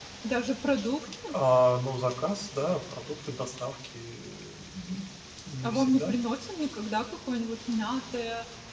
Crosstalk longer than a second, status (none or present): none